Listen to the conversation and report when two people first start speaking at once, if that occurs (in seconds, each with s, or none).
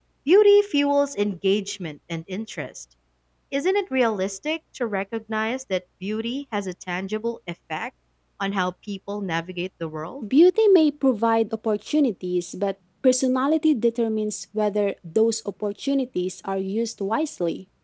none